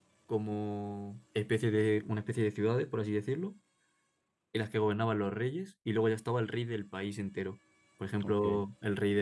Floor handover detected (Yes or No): No